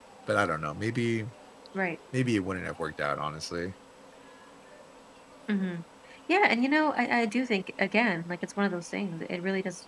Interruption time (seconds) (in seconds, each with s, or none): none